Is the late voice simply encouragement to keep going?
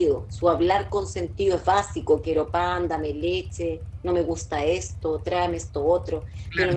No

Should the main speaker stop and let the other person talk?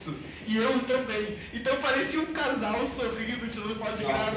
Yes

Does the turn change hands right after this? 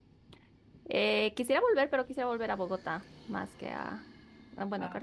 No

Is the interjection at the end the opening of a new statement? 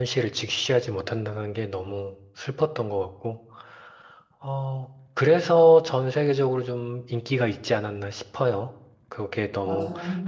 No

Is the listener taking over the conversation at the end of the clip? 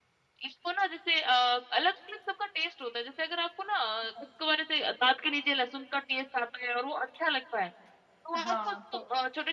No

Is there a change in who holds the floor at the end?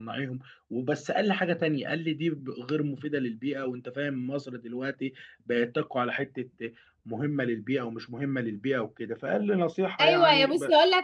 Yes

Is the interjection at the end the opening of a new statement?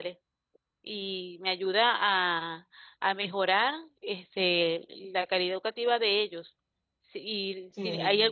No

